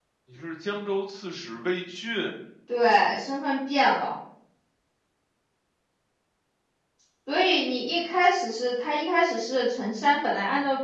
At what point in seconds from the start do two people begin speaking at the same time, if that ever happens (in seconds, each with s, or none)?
none